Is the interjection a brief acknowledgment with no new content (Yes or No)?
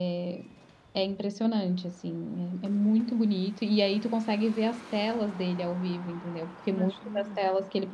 Yes